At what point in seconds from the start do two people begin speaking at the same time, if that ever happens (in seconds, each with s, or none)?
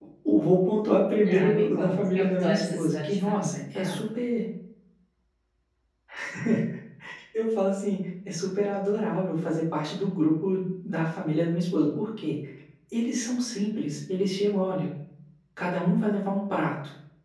1.2 s